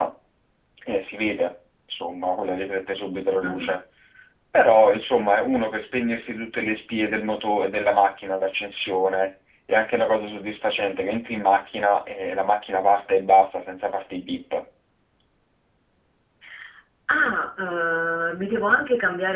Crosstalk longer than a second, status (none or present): none